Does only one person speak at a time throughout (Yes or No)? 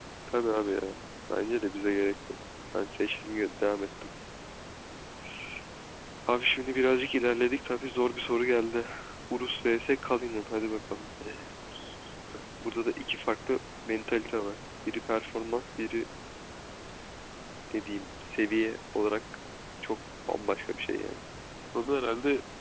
Yes